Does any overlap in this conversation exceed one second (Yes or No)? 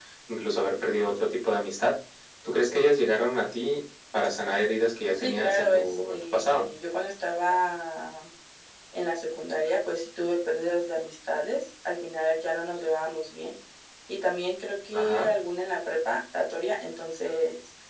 Yes